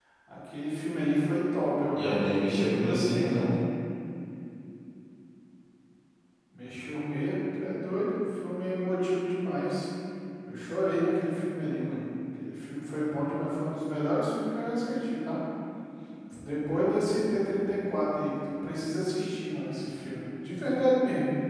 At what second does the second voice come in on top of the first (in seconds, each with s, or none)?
1.9 s